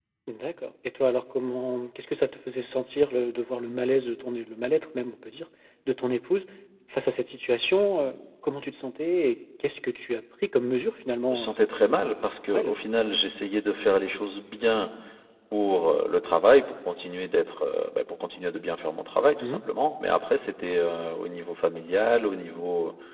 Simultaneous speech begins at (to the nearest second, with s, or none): 11 s